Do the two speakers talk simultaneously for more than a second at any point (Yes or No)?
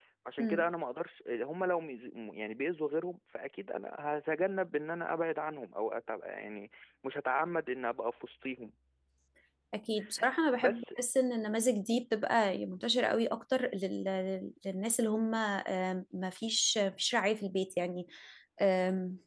No